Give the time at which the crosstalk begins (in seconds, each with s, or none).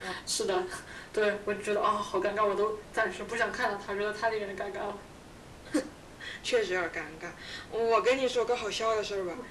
none